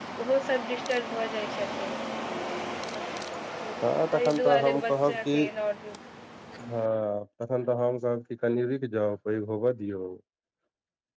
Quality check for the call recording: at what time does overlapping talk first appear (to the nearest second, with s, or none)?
4 s